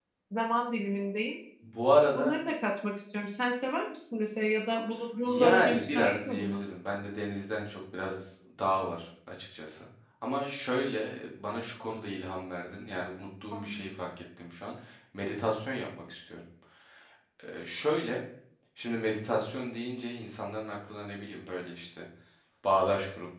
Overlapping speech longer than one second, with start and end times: 5.2-6.6

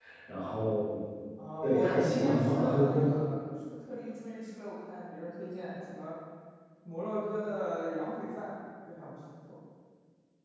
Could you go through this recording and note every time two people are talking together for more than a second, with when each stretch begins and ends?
1.6-3.1

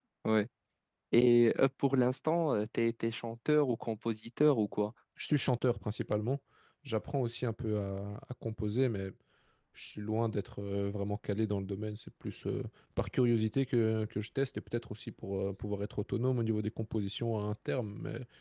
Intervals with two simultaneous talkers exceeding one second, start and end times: none

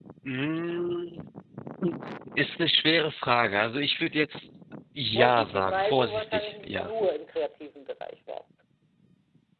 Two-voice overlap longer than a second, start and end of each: 5.1-6.9

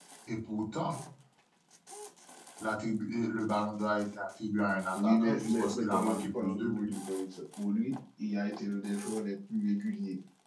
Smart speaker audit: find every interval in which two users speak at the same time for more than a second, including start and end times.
5.0-6.9

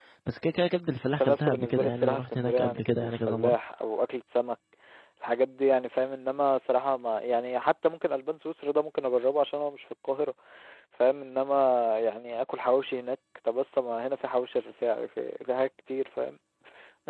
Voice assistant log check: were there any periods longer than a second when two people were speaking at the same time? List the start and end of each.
1.1-3.5

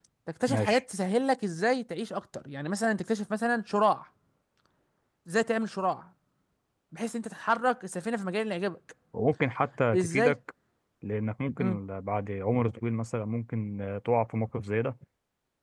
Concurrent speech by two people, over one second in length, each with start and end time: none

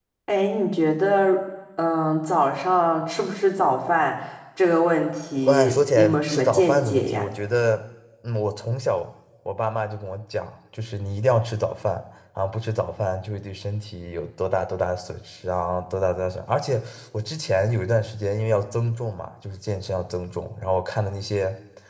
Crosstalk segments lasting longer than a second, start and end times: 5.5-7.2

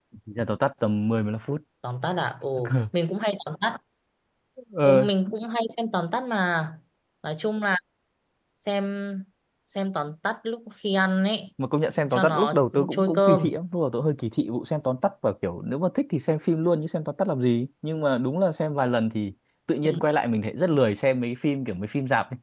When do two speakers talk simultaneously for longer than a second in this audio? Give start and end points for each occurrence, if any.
12.1-13.5

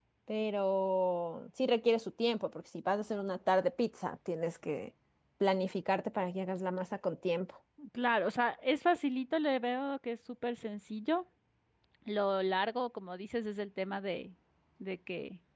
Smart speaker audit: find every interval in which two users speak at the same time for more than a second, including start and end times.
none

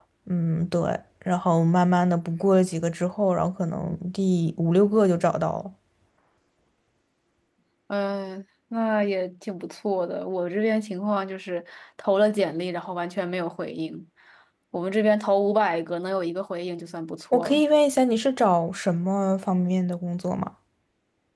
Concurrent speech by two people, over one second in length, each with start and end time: none

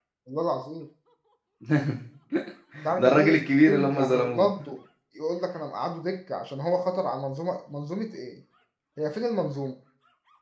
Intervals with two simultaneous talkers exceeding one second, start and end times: 3.0-4.5

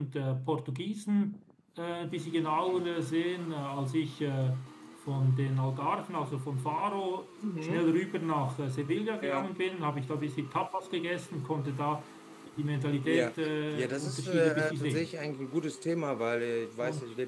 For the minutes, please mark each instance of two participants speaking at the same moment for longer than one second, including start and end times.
13.7-15.1

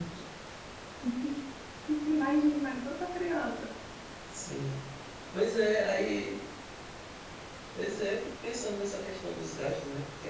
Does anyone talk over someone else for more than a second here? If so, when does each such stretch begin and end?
none

